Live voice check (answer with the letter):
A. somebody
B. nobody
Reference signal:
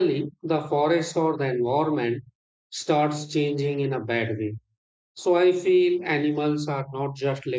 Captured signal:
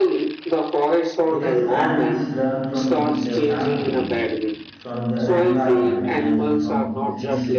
A